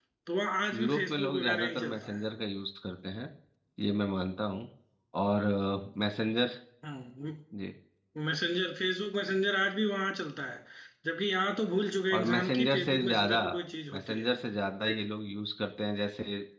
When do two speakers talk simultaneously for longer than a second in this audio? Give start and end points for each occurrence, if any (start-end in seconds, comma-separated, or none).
0.7-2.2, 12.1-13.4